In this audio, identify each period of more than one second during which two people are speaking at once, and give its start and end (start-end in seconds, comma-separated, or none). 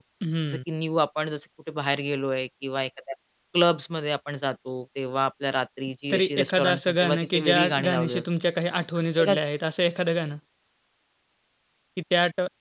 6.1-8.2